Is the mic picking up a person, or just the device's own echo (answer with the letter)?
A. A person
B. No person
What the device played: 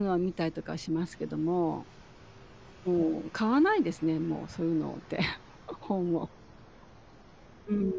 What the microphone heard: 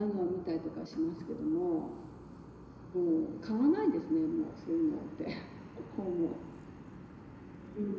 B